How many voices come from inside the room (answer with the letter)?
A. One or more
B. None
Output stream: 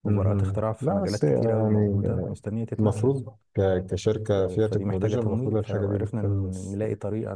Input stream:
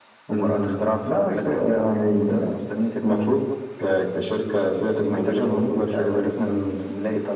B